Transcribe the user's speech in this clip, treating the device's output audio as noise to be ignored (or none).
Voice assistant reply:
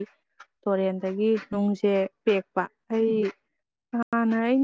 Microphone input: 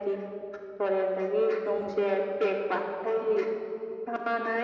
none